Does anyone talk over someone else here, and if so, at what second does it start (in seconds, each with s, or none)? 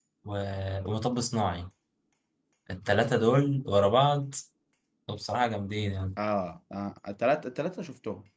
none